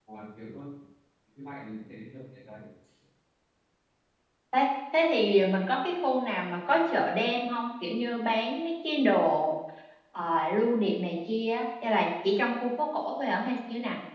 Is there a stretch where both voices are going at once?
No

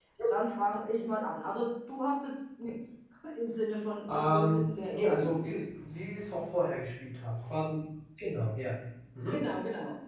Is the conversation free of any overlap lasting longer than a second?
No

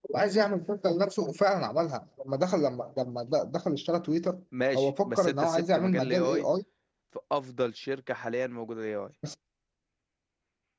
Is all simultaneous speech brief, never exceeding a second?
No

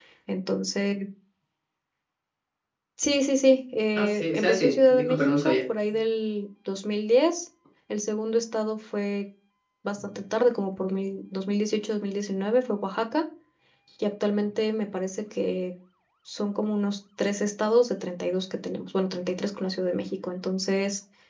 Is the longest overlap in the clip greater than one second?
Yes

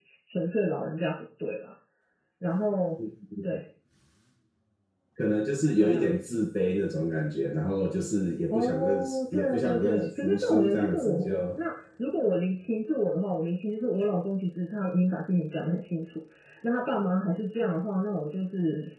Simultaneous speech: Yes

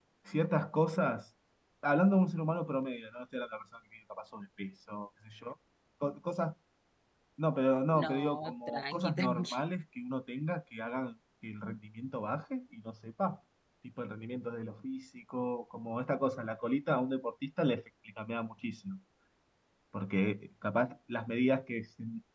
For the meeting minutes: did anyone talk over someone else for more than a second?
Yes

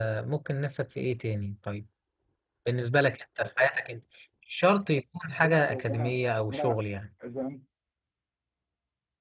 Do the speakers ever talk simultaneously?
Yes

